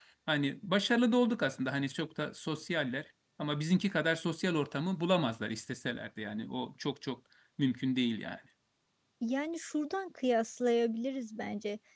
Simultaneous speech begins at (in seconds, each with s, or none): none